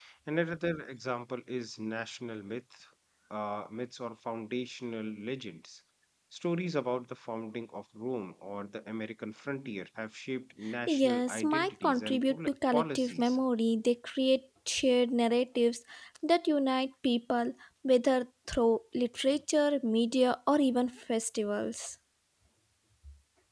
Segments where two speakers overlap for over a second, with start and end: 10.9-13.4

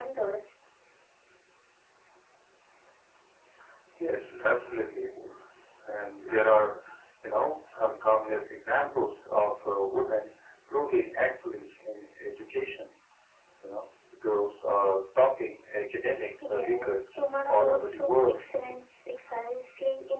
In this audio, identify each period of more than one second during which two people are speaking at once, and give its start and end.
16.5-18.4

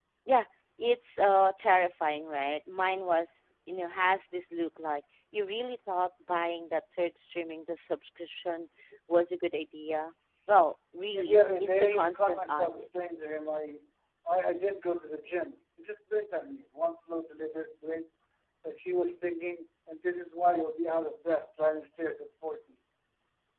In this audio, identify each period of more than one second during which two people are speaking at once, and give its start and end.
11.2-12.8

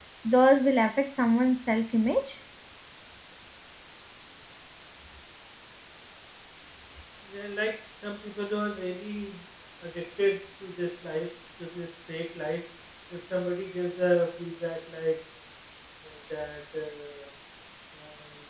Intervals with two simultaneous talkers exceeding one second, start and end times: none

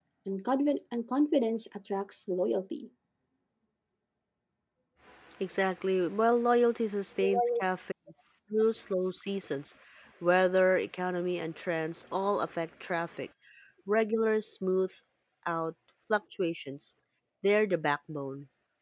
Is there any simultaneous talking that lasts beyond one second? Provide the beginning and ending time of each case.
none

